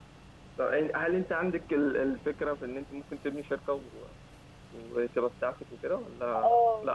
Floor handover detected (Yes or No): Yes